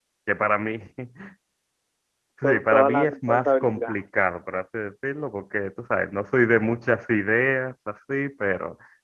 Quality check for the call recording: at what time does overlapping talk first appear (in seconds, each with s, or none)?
2.4 s